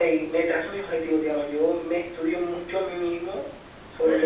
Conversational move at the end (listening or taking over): listening